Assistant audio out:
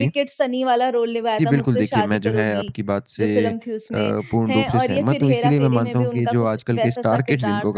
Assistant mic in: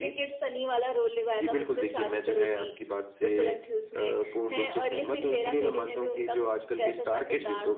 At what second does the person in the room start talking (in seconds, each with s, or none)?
none